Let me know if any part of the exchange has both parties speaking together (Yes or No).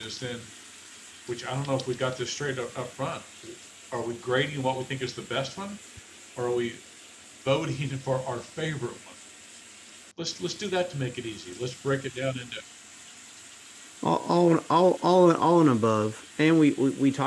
No